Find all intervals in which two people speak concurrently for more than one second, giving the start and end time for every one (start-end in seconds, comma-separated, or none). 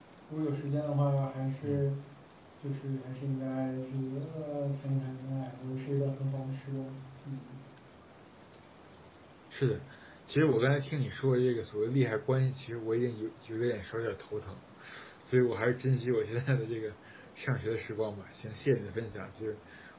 none